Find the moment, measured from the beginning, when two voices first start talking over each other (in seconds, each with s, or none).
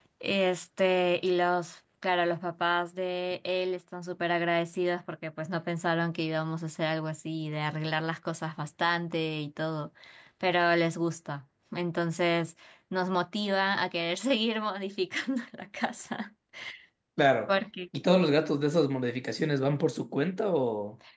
none